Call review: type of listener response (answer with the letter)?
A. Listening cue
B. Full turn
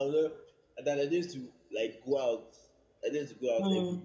A